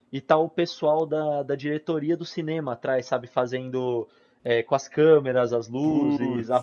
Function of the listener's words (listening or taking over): listening